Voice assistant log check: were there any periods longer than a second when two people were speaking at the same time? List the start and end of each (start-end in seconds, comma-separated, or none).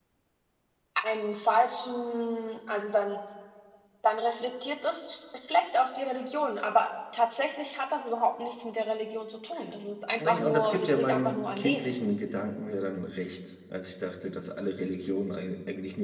10.2-12.0